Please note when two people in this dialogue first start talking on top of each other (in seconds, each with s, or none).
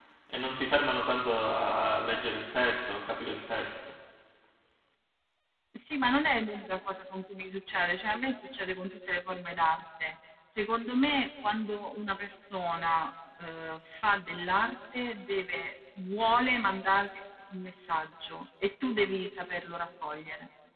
none